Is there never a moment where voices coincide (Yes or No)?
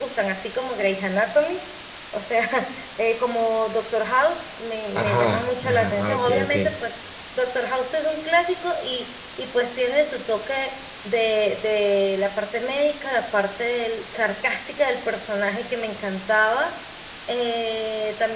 No